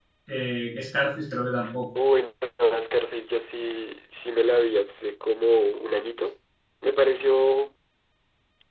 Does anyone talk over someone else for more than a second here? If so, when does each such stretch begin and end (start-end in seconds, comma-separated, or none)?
none